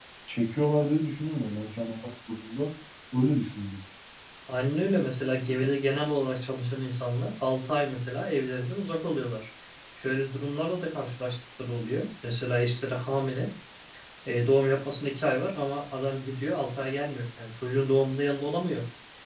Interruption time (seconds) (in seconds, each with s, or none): none